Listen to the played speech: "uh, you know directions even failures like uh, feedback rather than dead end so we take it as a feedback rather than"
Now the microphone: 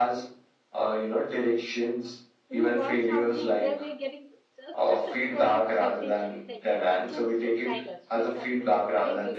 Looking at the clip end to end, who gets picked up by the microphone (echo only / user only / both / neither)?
both